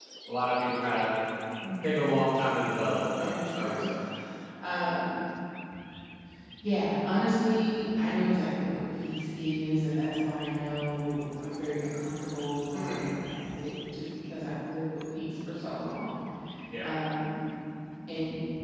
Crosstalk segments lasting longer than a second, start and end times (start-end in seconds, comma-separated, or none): 2.6-3.9